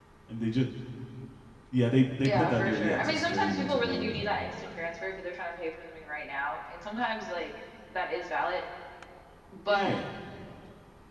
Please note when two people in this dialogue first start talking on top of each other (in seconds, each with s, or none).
2.2 s